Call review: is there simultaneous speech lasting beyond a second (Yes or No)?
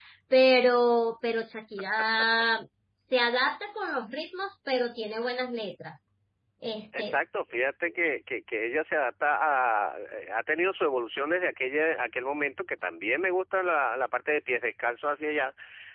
No